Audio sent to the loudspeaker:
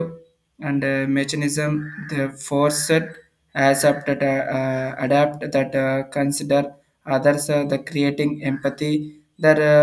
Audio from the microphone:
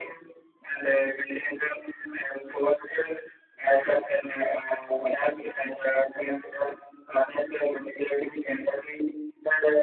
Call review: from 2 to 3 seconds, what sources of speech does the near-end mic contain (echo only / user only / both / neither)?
echo only